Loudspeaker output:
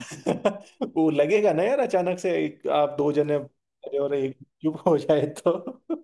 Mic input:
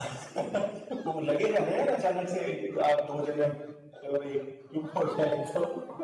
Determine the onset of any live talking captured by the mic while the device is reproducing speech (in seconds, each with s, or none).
none